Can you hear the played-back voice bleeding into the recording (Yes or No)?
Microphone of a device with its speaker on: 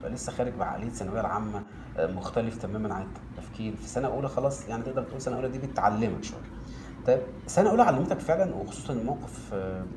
No